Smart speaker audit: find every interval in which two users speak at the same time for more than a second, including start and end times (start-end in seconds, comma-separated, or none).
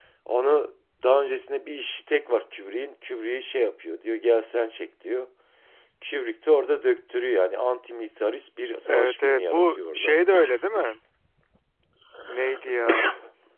8.9-10.2